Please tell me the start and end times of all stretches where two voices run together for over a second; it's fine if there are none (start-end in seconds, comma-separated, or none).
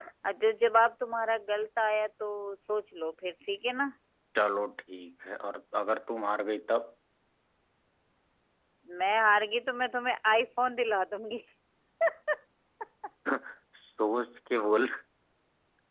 none